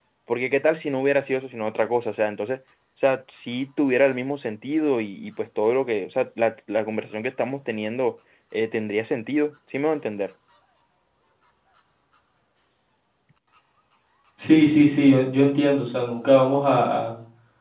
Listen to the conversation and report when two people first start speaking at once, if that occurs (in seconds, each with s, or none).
none